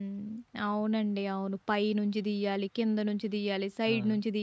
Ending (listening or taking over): listening